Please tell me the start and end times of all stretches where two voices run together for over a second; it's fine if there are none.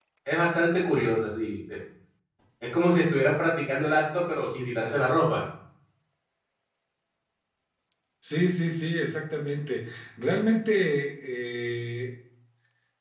none

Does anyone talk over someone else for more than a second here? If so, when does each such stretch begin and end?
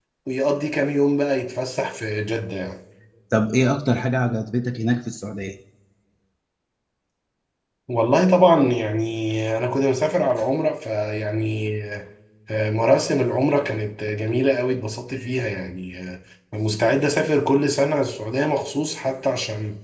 none

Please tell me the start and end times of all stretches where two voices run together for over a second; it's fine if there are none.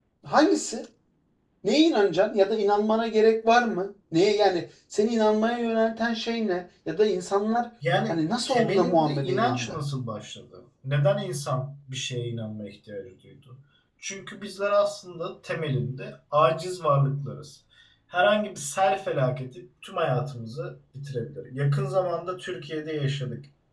8.1-9.8

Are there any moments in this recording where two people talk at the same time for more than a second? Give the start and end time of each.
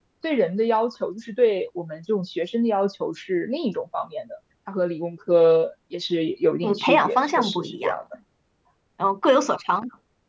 6.6-8.0

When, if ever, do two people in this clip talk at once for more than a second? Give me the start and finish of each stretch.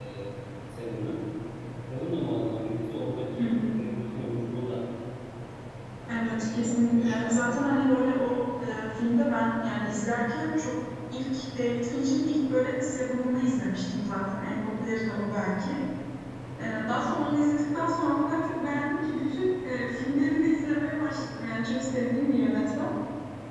6.1-7.8

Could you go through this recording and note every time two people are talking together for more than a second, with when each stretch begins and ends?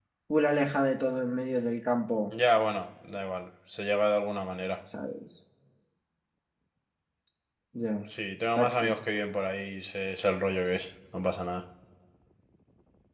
none

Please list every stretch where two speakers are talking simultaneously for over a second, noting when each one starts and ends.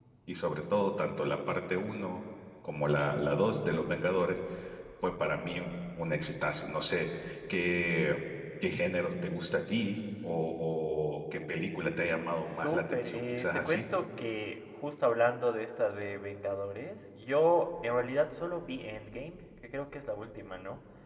12.6-13.8

